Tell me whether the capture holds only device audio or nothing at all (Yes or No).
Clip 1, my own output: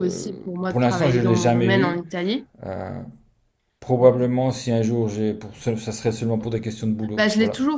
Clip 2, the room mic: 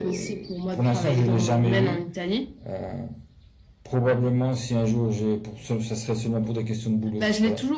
Yes